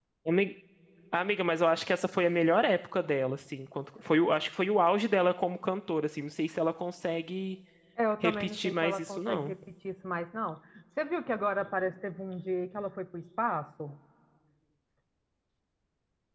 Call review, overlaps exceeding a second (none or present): present